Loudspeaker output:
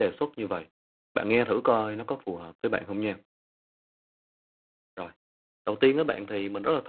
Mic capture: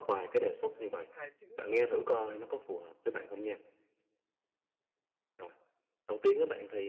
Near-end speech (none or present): present